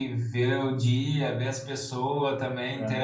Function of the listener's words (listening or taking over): listening